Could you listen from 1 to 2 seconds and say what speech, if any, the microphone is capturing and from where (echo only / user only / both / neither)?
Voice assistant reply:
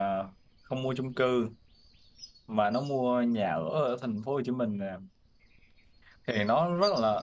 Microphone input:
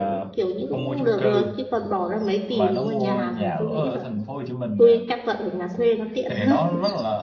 both